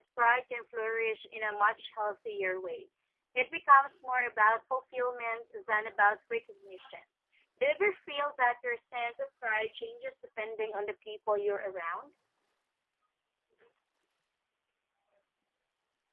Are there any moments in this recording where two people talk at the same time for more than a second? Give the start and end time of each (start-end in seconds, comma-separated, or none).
none